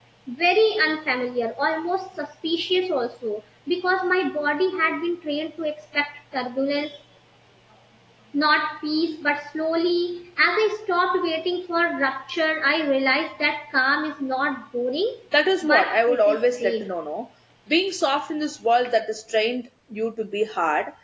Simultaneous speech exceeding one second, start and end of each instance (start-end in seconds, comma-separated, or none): 15.6-16.9